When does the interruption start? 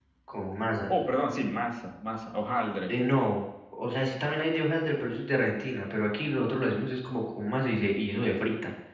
none

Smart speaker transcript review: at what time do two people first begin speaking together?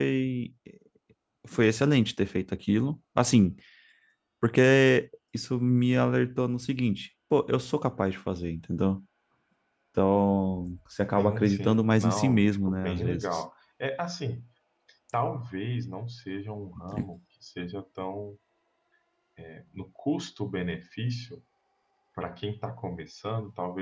11.2 s

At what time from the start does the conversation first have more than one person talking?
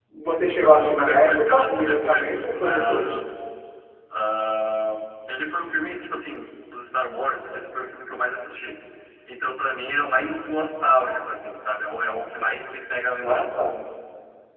0.6 s

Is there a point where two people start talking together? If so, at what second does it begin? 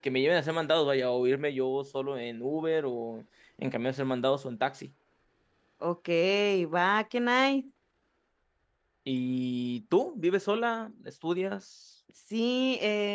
none

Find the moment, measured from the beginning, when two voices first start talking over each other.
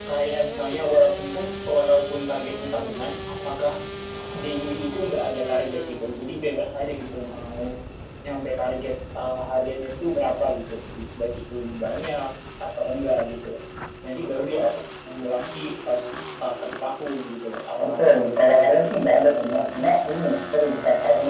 17.8 s

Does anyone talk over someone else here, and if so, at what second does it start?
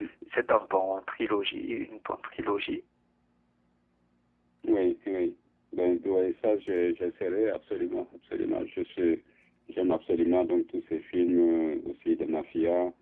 none

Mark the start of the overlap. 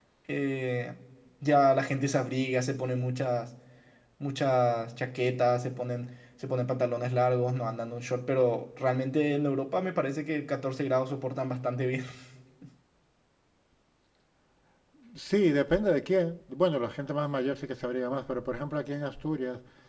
none

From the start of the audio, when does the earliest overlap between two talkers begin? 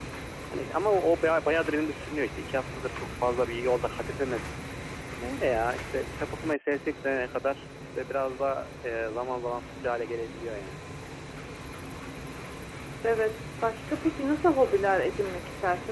none

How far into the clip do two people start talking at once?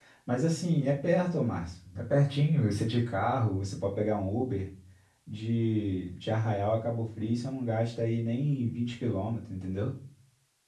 none

